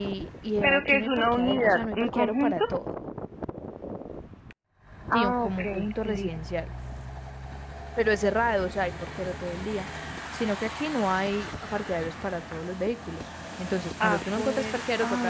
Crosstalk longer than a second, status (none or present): present